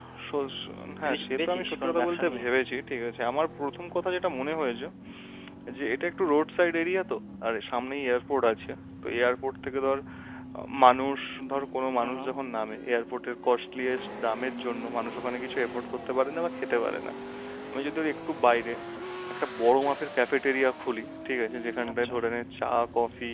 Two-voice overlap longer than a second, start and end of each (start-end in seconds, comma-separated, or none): 1.0-2.4